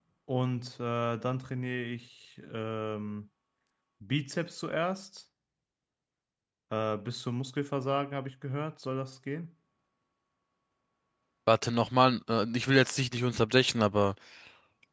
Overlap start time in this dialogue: none

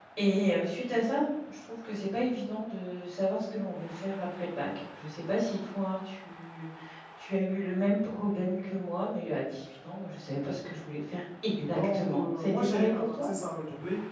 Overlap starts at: 11.7 s

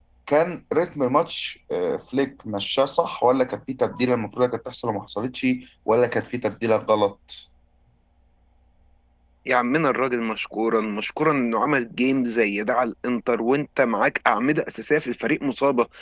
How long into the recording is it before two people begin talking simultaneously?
none

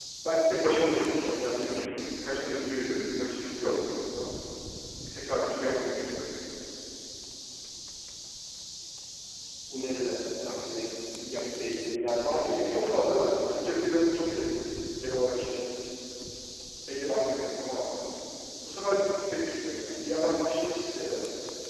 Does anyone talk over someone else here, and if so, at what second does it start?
12.3 s

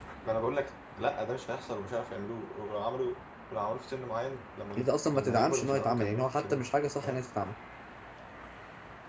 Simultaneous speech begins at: 4.7 s

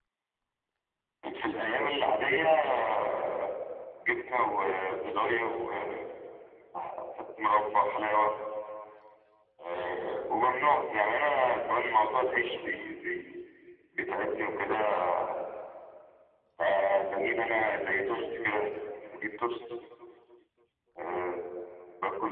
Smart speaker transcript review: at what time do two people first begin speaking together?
none

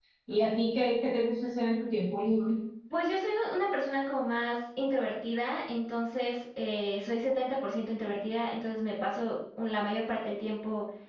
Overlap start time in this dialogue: none

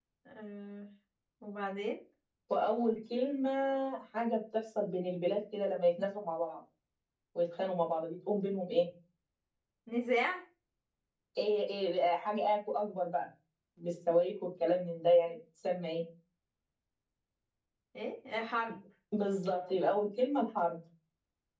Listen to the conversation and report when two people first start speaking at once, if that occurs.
none

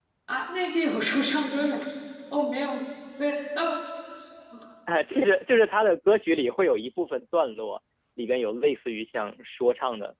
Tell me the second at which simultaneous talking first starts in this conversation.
none

